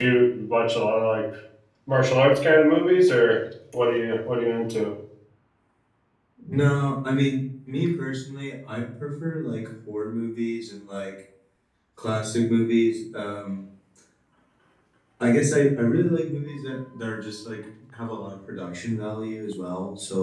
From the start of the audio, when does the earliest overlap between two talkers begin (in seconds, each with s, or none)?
none